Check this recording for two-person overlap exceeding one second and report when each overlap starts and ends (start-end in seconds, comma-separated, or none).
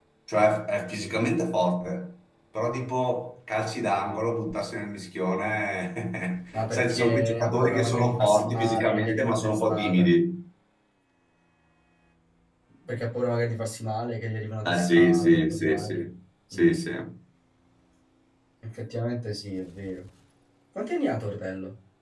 6.5-10.1, 14.7-16.1